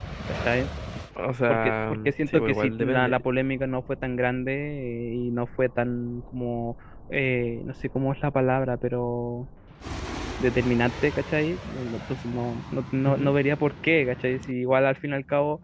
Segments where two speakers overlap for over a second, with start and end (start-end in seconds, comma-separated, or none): 1.5-3.2